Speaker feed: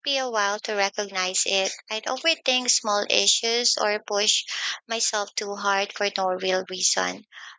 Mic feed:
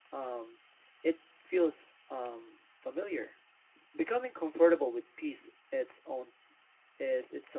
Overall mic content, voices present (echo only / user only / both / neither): user only